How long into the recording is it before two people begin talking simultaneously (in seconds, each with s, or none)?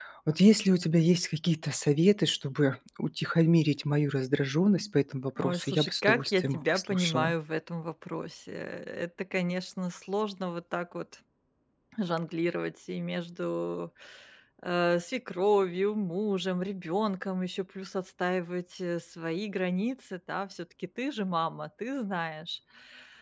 5.4 s